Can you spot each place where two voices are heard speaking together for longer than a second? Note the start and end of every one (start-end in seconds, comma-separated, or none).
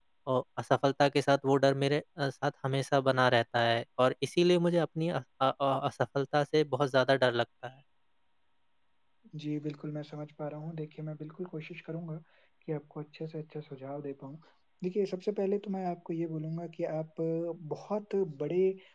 none